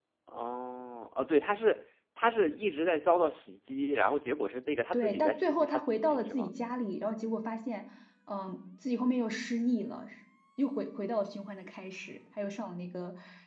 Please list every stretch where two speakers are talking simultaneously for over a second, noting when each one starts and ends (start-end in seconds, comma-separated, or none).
4.9-6.5